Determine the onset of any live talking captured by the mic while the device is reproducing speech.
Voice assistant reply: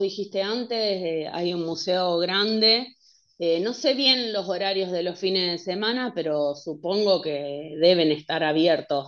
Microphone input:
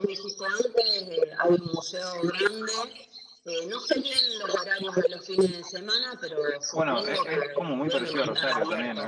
6.7 s

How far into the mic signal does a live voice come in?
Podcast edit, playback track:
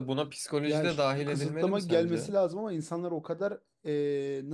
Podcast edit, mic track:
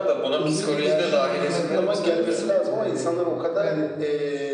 0.4 s

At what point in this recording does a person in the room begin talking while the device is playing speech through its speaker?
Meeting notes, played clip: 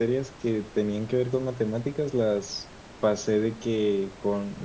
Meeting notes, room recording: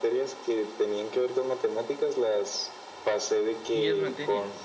3.7 s

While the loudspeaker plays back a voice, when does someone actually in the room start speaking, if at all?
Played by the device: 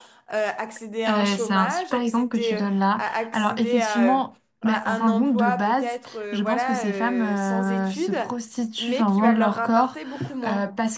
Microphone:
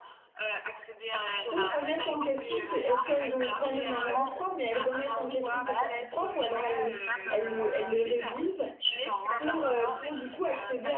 1.5 s

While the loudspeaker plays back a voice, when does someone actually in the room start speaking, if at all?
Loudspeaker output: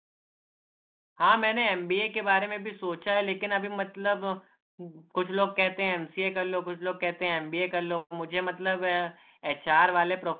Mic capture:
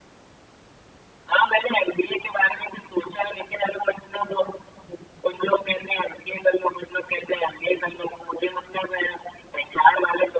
none

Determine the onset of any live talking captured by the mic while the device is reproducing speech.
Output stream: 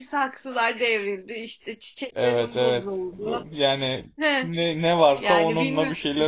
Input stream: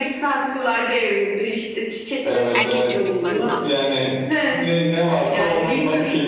2.5 s

